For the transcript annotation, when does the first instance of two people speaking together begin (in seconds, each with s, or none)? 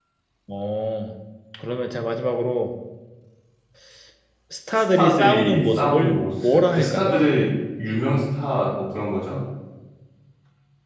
4.7 s